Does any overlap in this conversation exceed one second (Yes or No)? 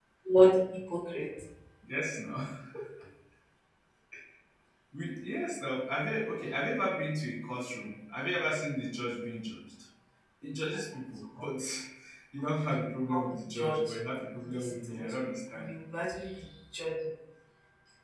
Yes